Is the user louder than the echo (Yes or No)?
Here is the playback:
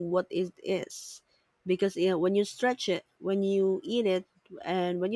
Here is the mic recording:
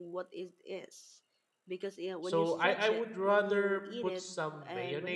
Yes